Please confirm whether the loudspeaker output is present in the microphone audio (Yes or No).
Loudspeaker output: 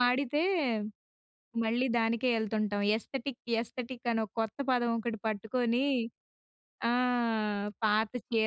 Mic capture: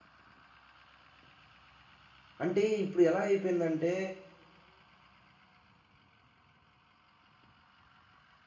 No